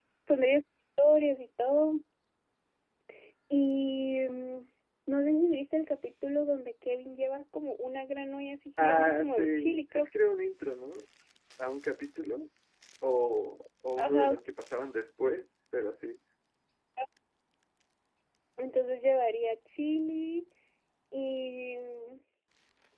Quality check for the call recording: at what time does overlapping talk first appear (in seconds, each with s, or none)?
8.8 s